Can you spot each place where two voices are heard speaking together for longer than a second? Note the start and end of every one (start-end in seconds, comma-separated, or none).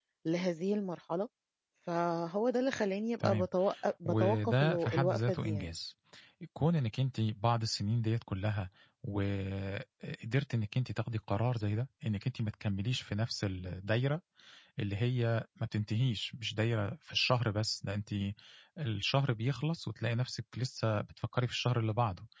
4.0-5.7